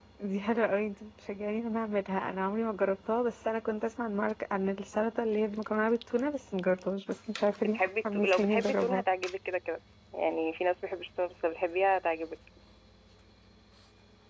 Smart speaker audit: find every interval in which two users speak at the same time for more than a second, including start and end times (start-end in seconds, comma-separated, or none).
7.6-9.0